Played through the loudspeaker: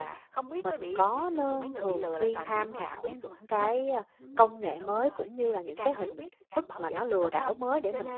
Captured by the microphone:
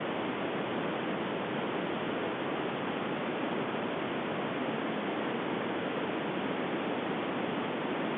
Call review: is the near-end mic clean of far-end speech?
Yes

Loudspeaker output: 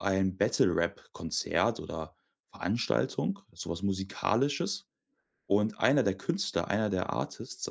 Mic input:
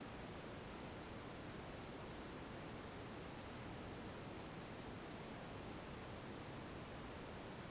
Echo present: No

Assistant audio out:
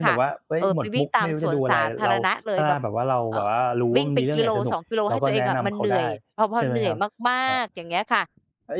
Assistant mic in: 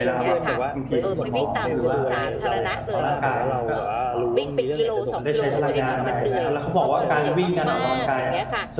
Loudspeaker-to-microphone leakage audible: Yes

